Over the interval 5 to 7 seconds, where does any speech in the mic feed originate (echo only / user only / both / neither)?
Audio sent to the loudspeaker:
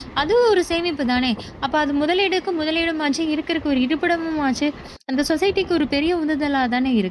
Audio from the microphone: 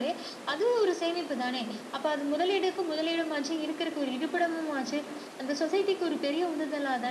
echo only